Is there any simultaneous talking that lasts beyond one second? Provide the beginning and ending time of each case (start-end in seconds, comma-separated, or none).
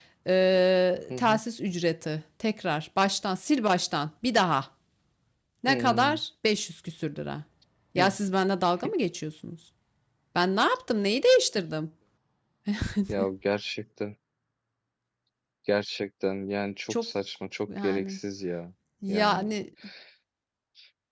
none